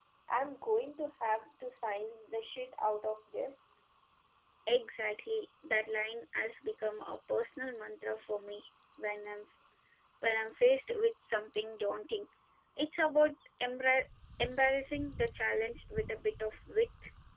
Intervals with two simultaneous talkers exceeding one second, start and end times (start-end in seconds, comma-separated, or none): none